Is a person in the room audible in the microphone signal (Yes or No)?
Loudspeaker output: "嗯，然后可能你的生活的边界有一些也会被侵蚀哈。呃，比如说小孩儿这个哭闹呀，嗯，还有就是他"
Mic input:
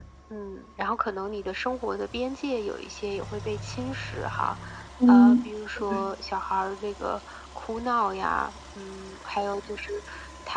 Yes